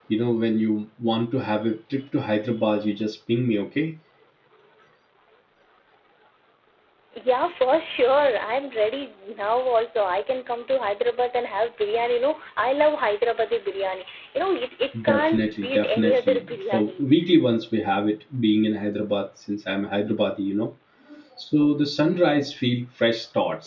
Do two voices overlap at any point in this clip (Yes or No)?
Yes